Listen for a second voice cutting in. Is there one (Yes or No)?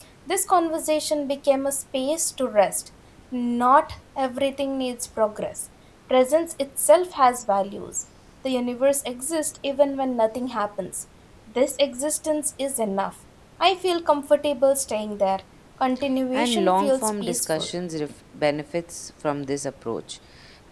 Yes